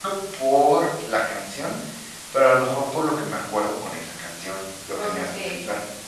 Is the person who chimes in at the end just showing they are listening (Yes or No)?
No